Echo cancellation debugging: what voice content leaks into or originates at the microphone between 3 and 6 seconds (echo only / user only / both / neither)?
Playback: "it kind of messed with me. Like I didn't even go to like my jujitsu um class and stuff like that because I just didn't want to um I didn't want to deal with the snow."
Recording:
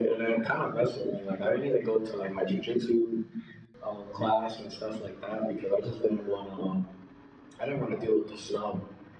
echo only